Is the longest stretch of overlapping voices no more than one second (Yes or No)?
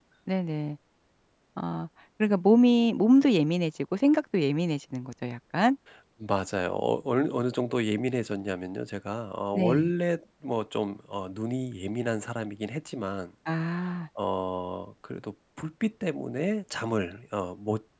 Yes